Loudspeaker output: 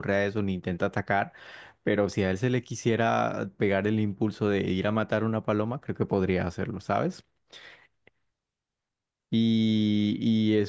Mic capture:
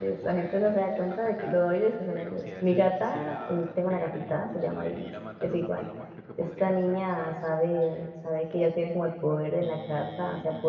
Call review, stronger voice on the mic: user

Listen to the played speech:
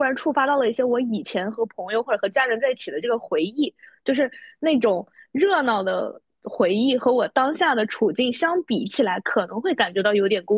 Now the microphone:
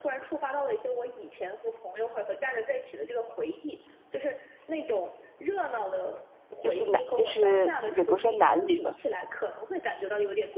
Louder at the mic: user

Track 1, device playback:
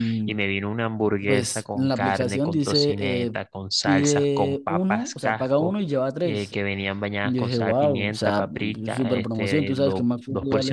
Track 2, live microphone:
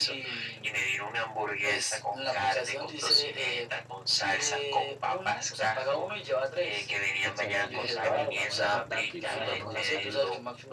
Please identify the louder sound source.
echo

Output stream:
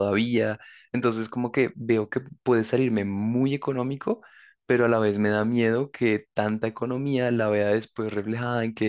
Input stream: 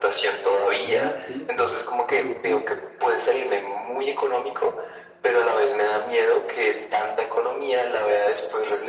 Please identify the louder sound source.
echo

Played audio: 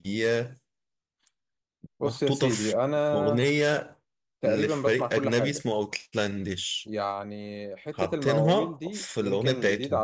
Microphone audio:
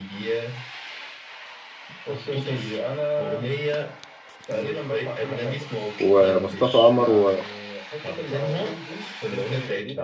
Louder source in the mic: user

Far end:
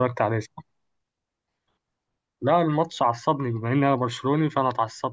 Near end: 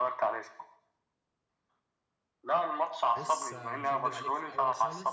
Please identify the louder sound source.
echo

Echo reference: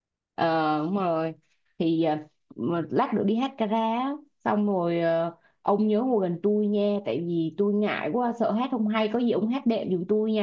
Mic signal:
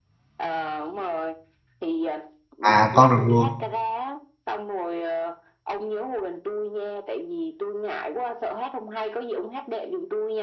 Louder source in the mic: user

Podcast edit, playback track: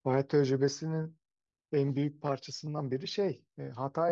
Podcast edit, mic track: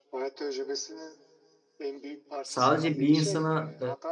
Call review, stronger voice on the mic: user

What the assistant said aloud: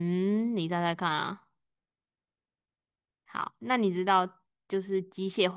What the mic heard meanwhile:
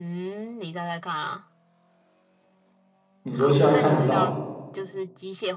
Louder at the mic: user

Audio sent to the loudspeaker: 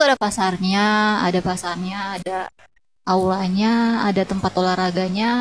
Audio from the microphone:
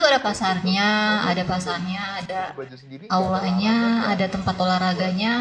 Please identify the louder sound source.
echo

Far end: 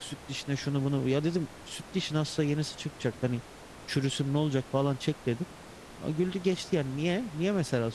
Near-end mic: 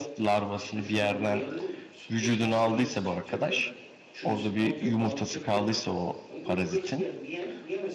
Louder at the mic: user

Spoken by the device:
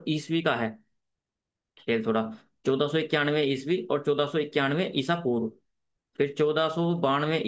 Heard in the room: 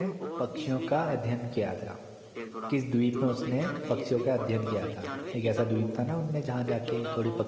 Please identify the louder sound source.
user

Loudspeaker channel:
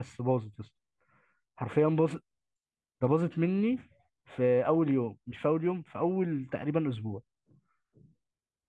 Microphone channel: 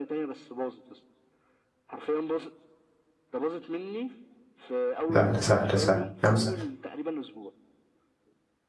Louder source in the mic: user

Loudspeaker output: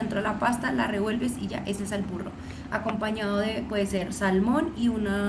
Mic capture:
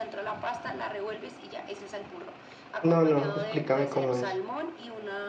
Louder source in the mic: user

